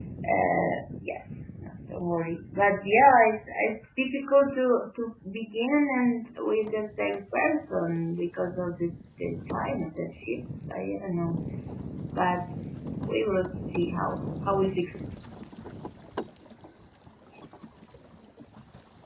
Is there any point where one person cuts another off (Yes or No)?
No